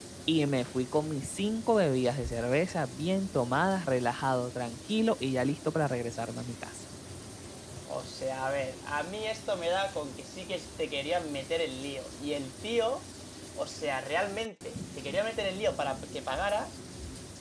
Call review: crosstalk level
none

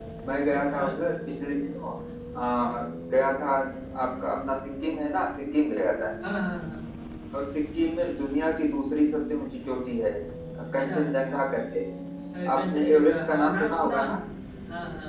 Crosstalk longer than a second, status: present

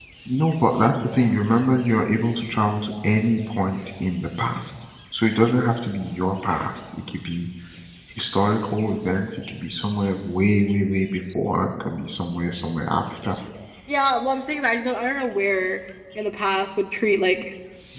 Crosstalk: none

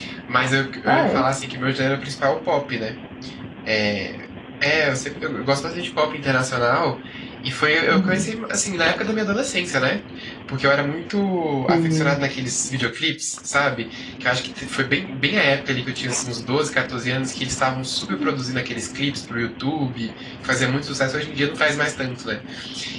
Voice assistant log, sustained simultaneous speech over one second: none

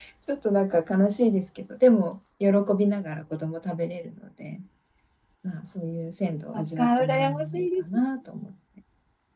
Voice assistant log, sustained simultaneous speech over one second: present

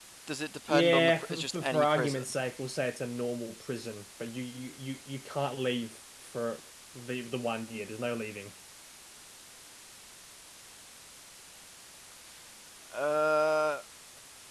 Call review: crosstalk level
present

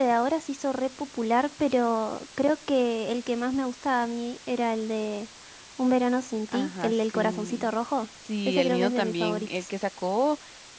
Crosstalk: present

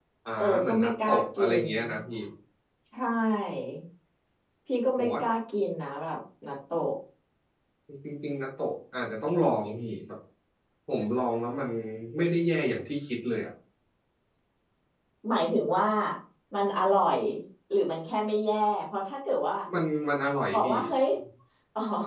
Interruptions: present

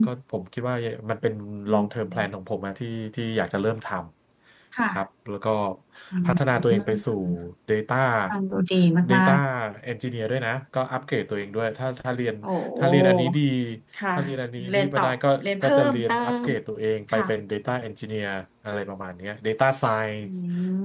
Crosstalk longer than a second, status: present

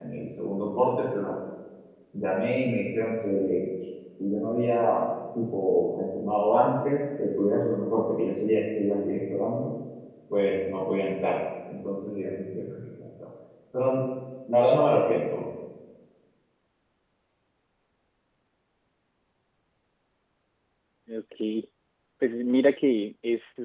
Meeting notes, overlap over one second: none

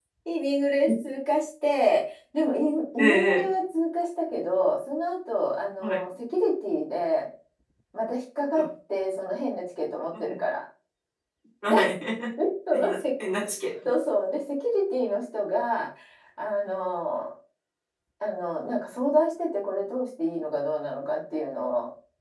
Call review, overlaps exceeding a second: none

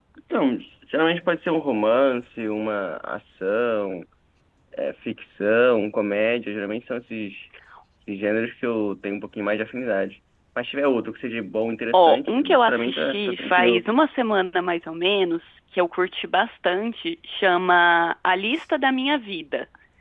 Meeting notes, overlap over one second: present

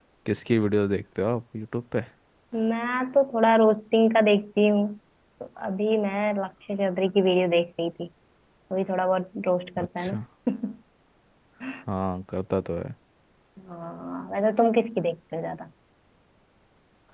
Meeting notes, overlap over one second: none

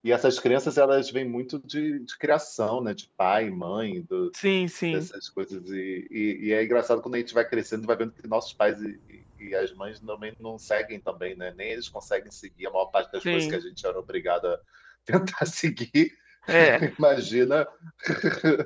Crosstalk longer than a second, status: none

